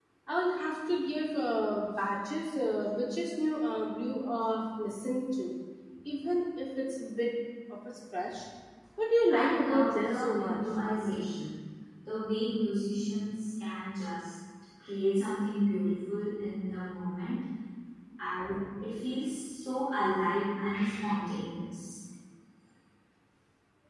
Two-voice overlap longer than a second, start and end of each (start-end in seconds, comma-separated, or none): 9.3-10.6